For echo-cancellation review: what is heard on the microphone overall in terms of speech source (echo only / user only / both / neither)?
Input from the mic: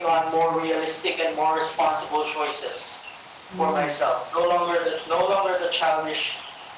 both